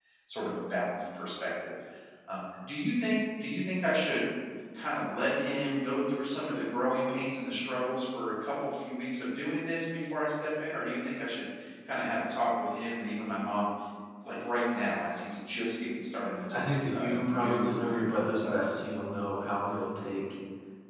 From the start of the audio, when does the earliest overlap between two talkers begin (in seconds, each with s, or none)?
16.5 s